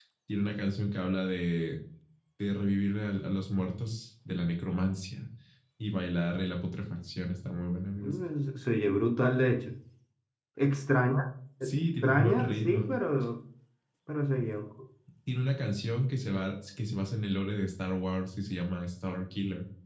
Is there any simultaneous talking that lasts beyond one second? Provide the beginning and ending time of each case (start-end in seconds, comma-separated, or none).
11.6-12.9